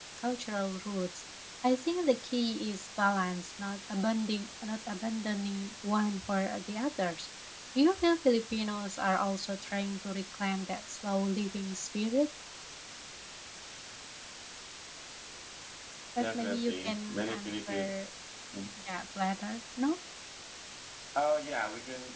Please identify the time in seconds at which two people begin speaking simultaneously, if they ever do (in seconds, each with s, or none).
16.2 s